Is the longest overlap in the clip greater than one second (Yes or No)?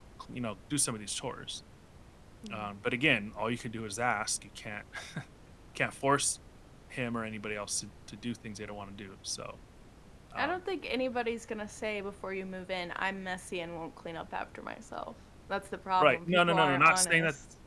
Yes